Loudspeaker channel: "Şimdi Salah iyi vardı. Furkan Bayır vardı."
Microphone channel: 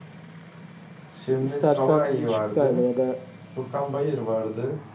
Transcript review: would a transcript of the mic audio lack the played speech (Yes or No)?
No